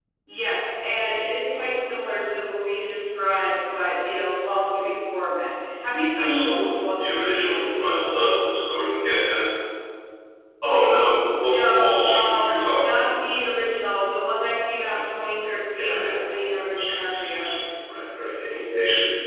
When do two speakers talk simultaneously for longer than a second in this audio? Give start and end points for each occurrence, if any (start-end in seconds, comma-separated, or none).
6.2-7.3, 11.4-13.1, 15.7-17.5